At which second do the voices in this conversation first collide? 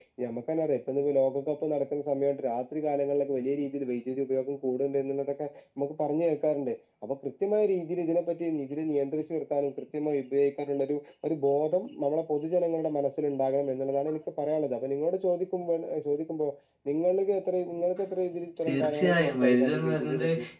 18.6 s

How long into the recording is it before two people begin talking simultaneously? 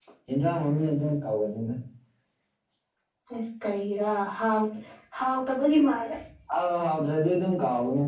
none

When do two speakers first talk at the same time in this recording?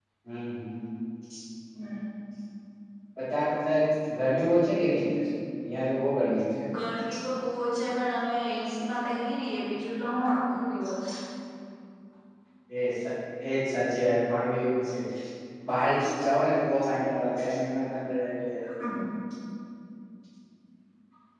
none

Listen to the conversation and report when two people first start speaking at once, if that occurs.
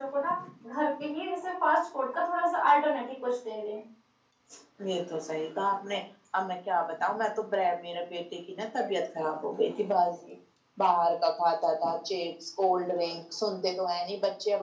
none

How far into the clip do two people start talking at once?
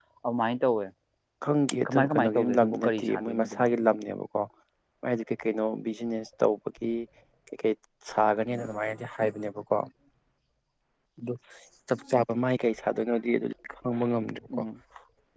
1.9 s

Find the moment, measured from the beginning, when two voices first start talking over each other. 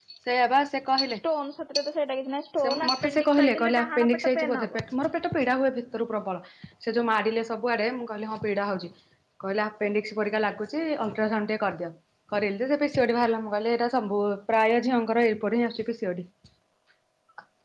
2.6 s

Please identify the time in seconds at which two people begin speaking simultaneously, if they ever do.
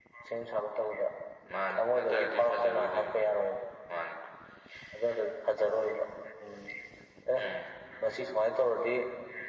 1.7 s

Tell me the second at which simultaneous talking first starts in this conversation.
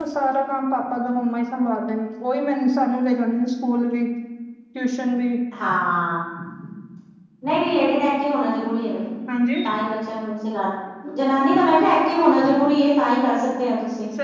none

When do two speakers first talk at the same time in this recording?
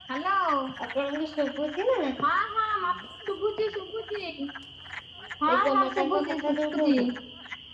5.5 s

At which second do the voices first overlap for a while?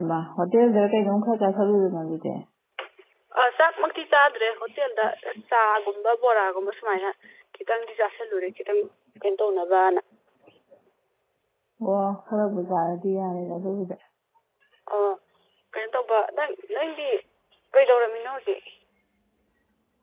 none

